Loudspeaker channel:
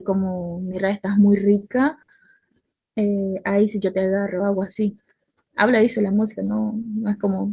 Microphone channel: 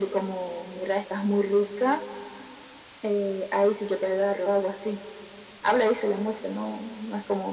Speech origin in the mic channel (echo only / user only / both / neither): echo only